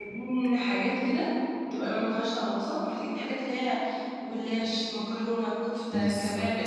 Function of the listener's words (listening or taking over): listening